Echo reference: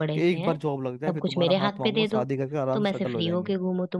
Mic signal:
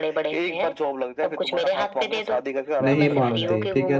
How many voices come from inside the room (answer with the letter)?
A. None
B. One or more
B